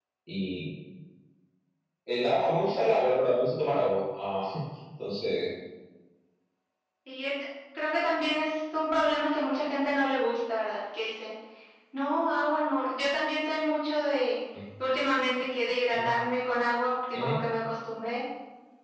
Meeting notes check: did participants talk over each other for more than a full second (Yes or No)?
No